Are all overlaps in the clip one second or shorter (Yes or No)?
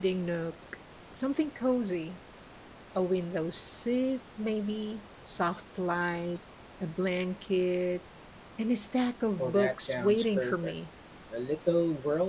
No